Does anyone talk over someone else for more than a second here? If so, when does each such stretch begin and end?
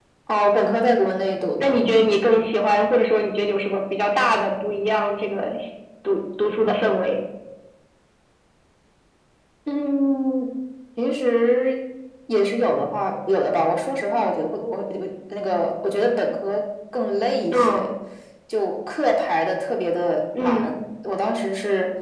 none

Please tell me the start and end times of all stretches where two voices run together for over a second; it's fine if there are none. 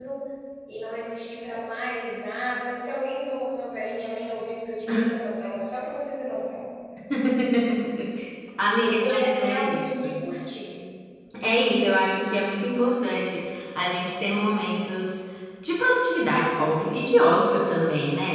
8.8-10.1

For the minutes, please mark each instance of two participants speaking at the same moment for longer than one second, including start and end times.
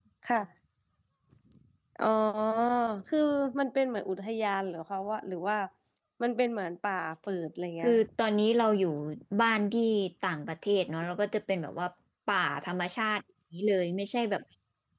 none

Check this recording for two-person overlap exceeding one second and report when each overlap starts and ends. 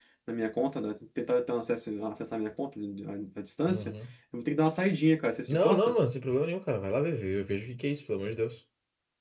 none

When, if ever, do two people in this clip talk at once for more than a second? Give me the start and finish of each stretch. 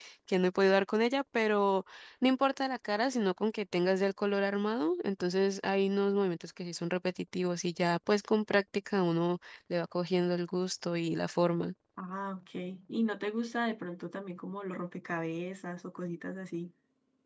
none

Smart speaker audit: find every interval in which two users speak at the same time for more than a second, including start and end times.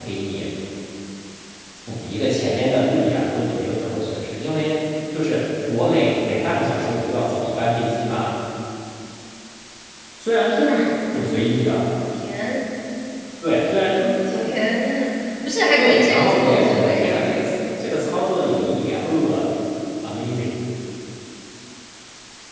15.8-17.2

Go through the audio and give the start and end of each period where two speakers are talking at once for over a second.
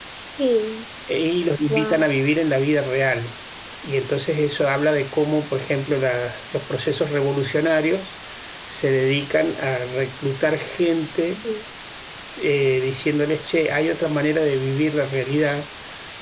none

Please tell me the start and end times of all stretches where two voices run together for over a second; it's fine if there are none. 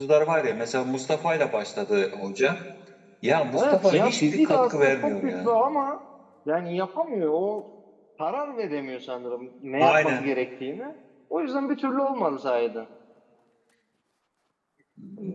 3.5-5.5

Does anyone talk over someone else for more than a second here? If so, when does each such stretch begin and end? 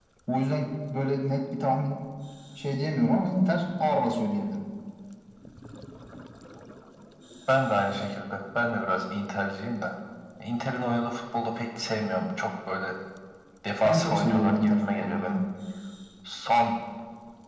13.8-15.4

